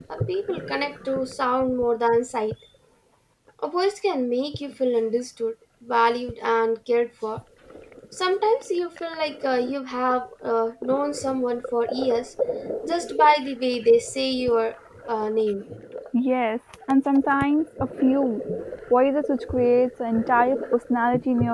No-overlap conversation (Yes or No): Yes